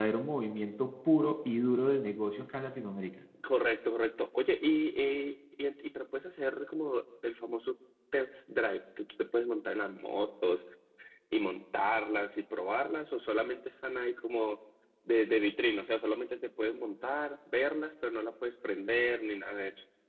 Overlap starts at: none

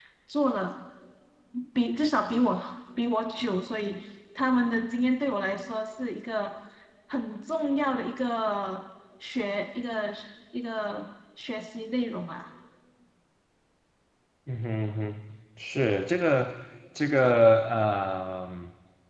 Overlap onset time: none

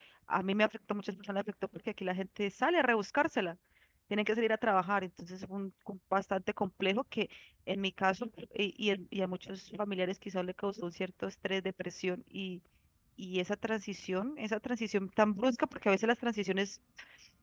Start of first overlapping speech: none

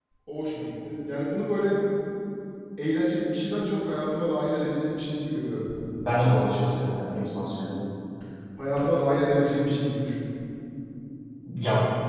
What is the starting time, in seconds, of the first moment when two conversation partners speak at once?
none

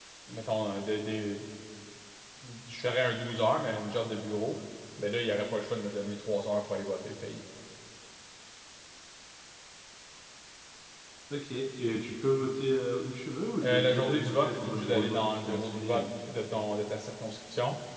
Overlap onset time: 14 s

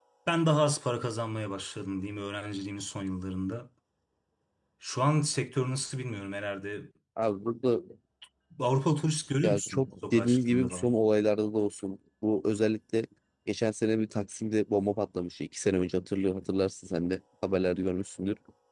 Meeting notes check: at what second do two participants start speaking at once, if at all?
9 s

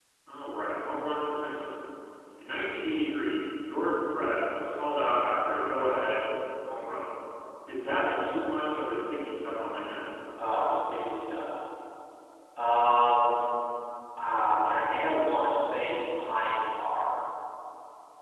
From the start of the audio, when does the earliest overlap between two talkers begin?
none

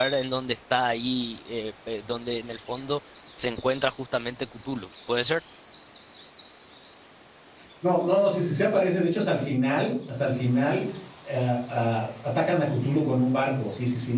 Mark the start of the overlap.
none

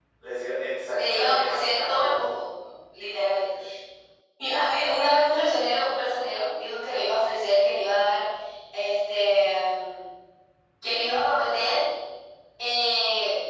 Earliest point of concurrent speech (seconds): 1 s

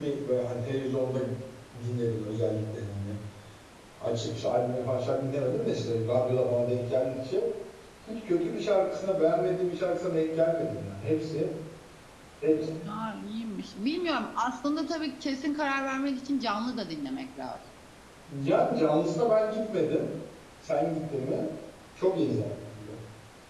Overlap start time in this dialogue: none

